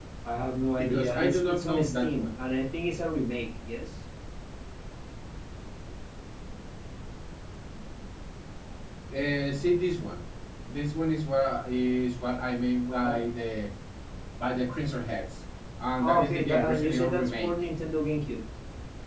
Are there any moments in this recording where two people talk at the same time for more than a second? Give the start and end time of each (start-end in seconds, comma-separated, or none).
0.8-2.4, 16.0-17.5